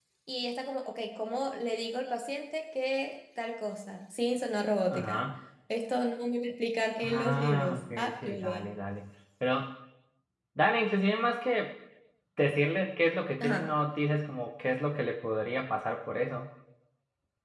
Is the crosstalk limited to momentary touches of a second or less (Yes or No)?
No